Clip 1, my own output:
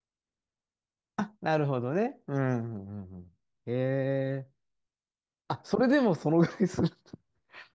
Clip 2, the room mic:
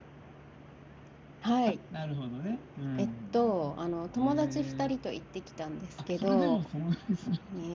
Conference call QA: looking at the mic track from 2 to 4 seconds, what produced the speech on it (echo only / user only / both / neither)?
both